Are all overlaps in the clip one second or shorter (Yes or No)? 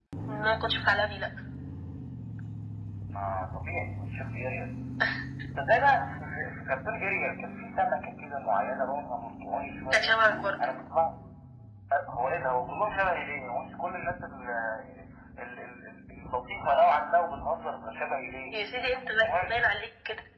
Yes